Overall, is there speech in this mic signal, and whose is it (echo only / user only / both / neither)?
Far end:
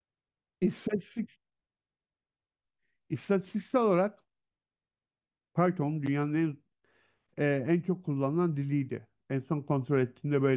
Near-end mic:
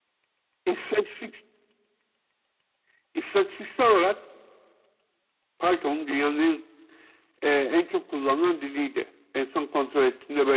echo only